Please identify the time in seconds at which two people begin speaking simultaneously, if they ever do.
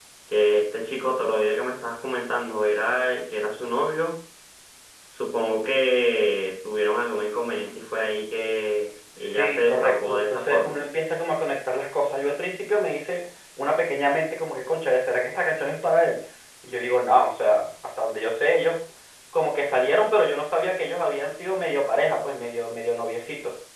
9.2 s

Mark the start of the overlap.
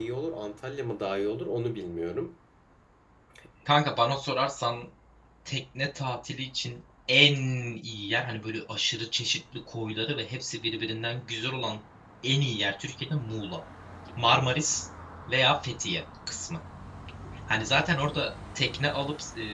none

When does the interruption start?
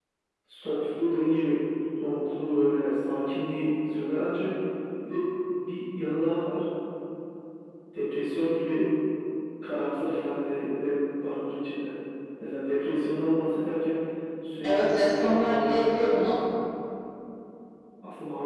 14.6 s

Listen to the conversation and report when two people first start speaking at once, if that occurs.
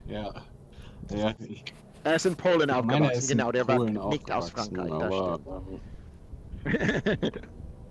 2.7 s

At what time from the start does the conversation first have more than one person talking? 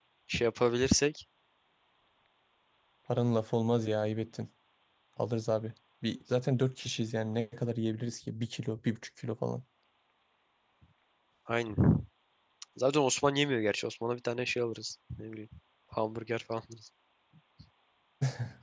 none

